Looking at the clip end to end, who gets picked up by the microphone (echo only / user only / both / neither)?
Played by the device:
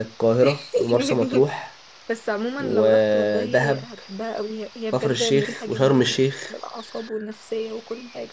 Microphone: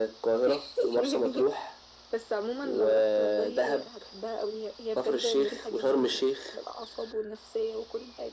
echo only